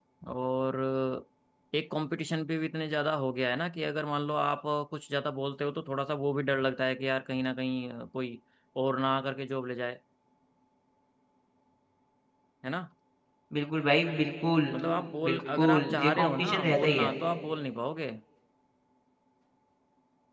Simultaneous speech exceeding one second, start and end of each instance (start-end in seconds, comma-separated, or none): 15.2-17.1